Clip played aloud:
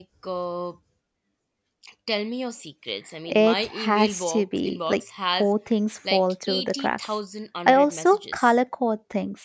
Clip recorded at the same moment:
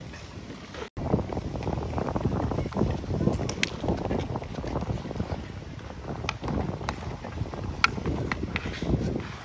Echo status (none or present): none